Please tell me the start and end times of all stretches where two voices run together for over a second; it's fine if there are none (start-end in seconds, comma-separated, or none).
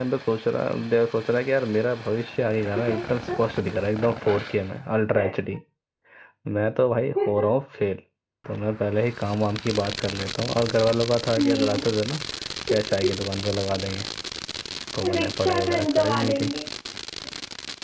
15.2-16.5